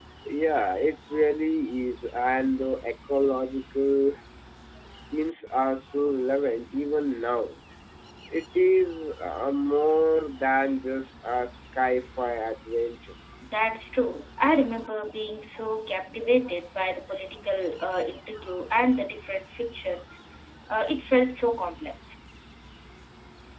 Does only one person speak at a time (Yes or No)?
Yes